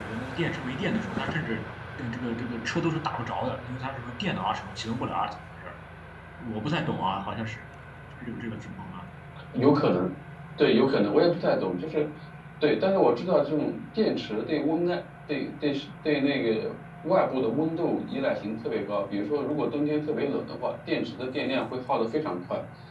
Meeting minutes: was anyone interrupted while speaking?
No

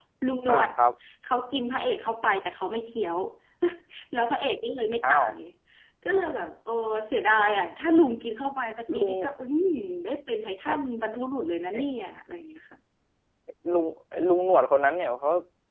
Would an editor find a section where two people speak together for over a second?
No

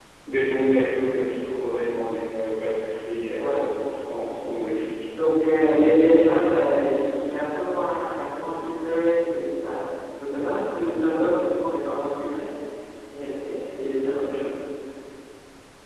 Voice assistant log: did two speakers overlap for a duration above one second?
No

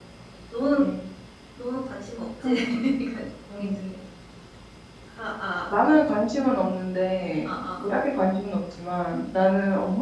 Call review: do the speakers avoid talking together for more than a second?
Yes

